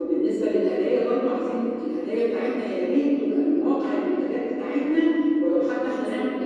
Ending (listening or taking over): listening